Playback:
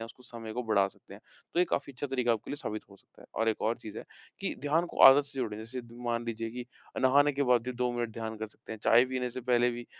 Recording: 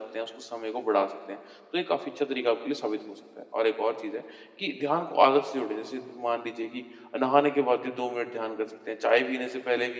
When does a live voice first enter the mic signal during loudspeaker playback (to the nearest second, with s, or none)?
none